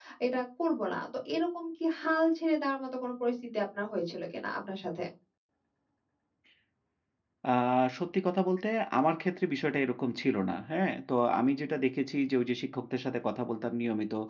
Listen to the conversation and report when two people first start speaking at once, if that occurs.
none

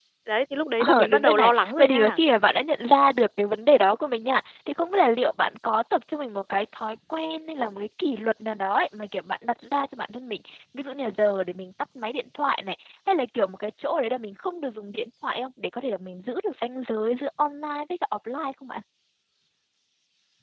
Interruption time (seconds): 1 s

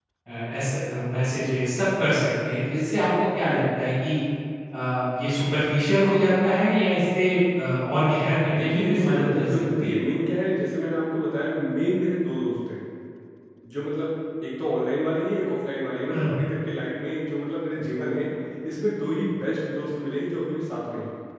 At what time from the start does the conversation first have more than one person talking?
9 s

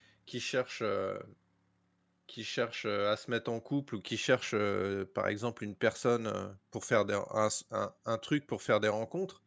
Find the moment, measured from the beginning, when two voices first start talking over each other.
none

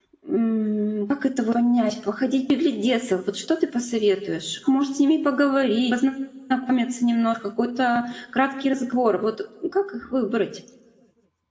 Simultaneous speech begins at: none

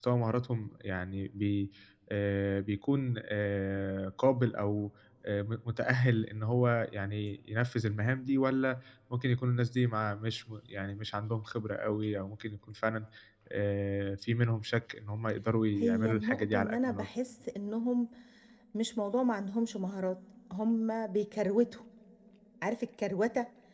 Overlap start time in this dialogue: 16 s

